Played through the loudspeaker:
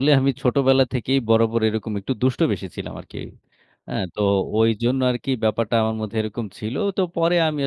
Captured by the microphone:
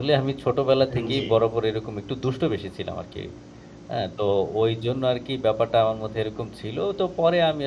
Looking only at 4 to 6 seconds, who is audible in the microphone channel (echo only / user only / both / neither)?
echo only